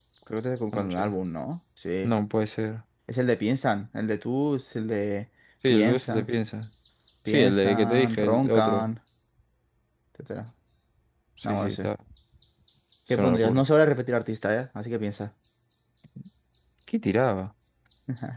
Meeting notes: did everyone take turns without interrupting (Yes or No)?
No